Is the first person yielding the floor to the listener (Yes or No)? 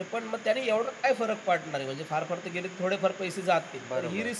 No